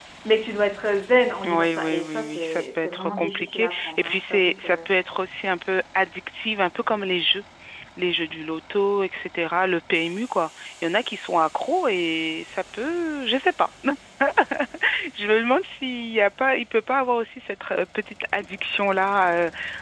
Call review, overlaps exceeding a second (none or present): present